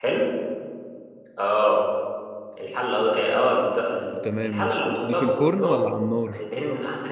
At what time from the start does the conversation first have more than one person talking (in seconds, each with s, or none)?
4.2 s